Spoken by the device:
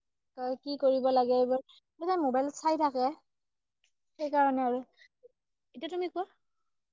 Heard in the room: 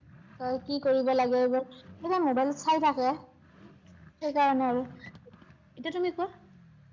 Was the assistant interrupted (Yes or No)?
No